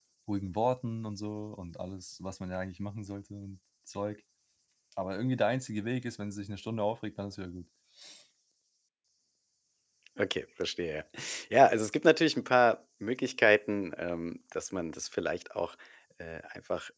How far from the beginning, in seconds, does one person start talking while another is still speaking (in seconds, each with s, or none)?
none